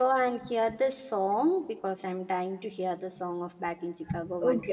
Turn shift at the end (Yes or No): Yes